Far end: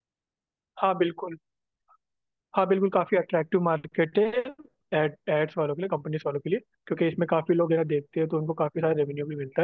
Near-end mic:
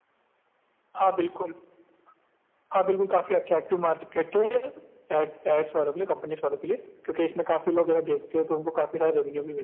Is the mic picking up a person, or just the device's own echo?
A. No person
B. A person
A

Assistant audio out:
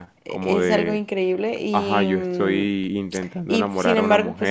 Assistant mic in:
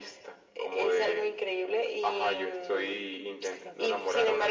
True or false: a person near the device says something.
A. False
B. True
A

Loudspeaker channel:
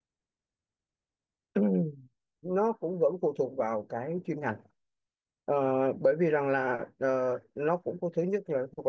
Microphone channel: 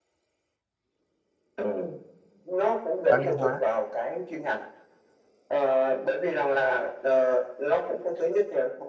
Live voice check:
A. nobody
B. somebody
B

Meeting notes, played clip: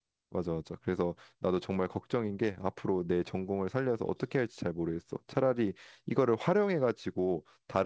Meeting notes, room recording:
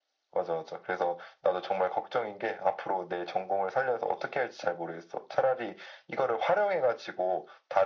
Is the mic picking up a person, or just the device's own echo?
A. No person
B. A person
A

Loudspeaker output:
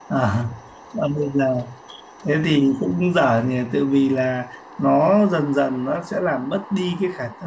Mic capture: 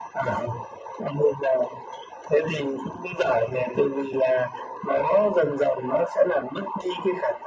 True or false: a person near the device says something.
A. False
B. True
A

